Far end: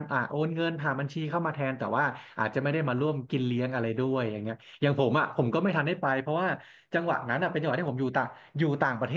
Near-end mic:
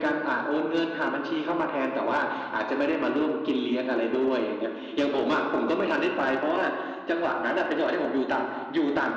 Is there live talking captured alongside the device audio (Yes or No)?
No